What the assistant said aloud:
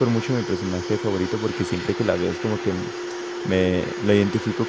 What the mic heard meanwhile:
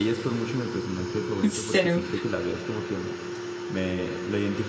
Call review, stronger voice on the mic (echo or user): user